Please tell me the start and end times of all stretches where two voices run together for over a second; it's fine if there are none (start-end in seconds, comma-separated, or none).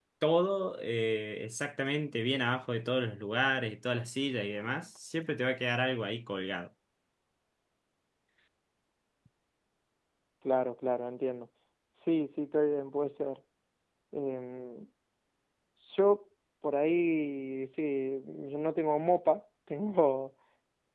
none